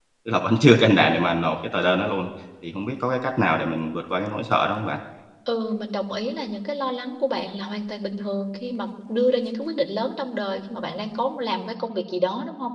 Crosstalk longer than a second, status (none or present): none